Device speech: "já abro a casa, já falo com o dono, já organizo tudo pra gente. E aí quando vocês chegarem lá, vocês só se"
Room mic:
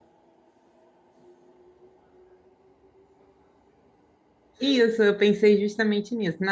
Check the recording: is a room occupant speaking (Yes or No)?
Yes